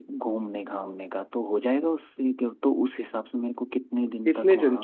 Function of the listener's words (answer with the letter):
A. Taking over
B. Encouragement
A